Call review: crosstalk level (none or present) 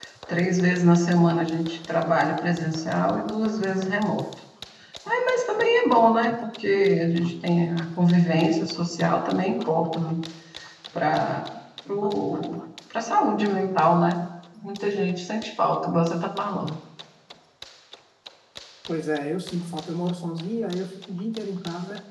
none